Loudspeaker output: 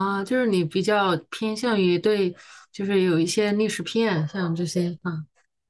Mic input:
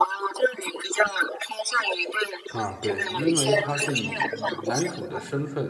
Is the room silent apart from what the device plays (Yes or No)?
No